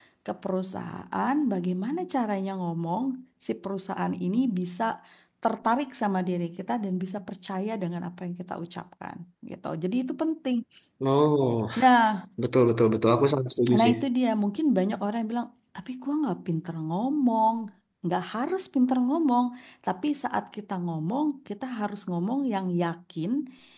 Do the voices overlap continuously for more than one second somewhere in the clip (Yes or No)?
No